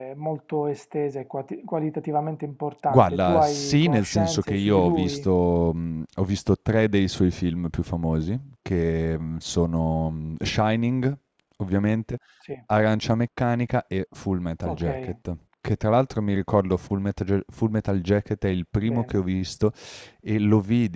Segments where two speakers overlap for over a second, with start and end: 2.9-5.3

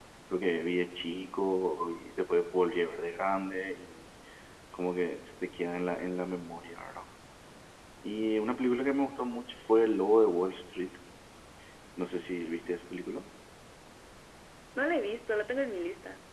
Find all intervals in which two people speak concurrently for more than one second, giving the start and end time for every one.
none

